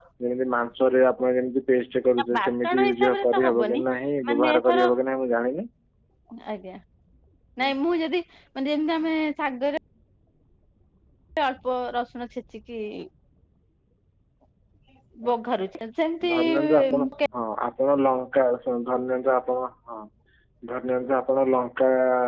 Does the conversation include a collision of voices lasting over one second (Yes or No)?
Yes